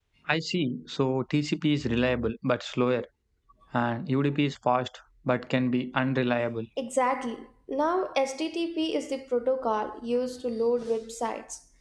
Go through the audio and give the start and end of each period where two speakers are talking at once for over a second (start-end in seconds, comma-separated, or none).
none